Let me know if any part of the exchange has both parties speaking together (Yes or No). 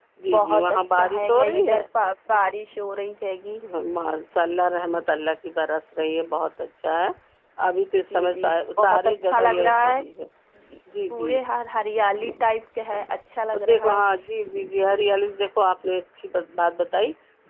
Yes